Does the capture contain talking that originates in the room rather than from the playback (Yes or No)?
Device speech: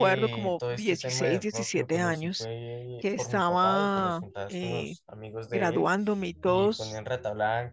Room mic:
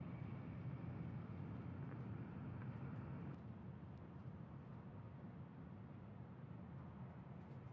No